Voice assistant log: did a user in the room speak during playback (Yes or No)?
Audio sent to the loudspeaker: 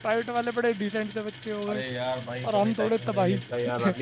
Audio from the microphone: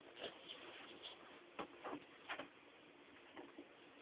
No